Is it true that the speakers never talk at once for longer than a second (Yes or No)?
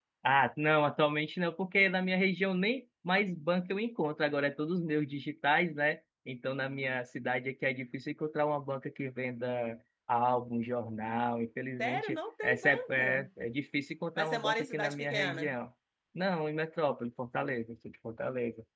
No